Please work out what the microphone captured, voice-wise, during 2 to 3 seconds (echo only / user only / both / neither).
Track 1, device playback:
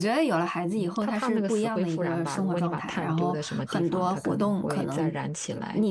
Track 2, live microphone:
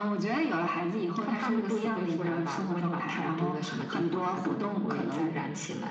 echo only